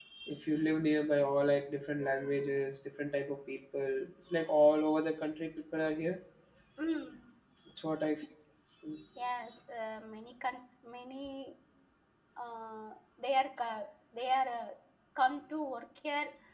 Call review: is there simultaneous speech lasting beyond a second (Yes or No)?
No